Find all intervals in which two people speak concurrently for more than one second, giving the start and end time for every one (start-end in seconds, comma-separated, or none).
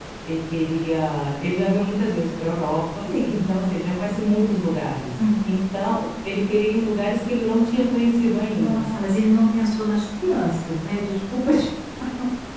none